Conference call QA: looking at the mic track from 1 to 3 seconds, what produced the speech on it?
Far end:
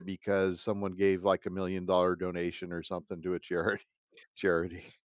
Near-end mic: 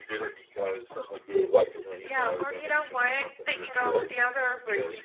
both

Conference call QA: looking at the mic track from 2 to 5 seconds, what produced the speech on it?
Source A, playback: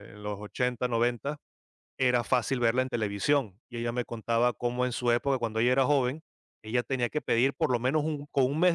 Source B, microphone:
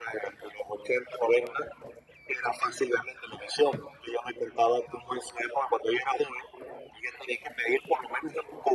echo only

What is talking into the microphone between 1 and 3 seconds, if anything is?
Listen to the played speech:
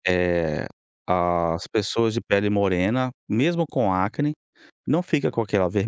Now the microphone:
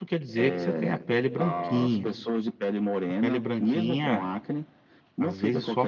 both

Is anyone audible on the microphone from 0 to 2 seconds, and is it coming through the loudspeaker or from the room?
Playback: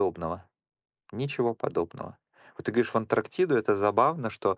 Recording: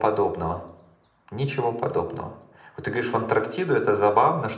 echo only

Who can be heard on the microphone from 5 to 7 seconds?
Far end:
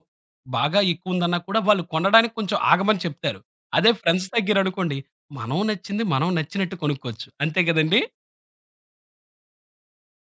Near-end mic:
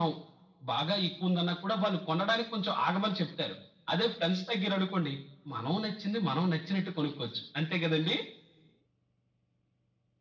echo only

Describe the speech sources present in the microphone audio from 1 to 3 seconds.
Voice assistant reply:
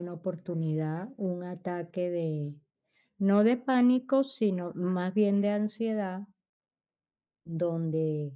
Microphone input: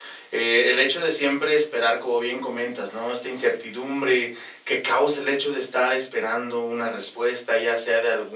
user only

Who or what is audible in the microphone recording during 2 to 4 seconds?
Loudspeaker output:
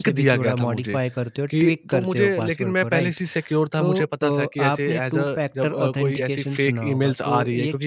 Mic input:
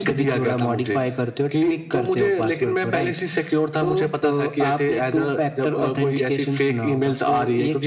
echo only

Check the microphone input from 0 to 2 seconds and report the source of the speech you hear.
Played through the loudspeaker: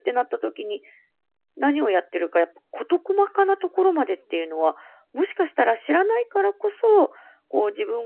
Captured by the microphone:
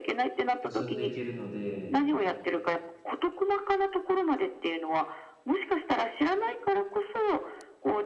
both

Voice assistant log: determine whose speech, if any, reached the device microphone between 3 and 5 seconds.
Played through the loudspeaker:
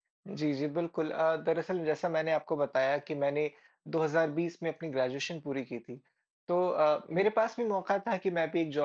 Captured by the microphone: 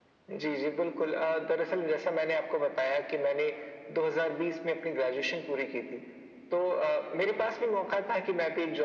echo only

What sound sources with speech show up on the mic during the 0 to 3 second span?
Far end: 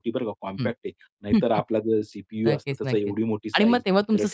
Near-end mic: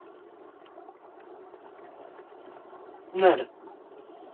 neither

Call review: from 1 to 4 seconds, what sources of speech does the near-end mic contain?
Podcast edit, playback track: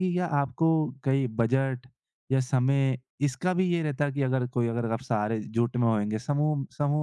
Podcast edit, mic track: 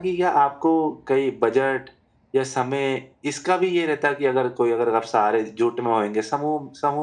echo only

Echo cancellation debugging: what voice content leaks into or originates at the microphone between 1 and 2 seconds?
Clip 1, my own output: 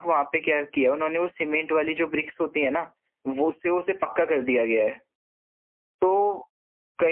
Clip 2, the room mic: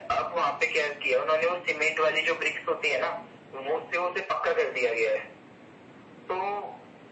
echo only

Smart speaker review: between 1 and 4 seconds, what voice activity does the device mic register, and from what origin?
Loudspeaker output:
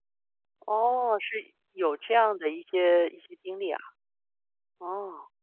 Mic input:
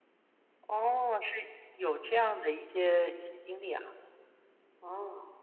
echo only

